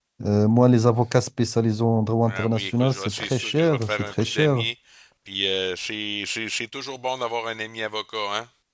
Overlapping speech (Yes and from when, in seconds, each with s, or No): Yes, from 2.2 s